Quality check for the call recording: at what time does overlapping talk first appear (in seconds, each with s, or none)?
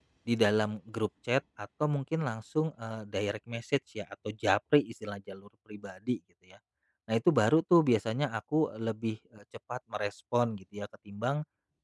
none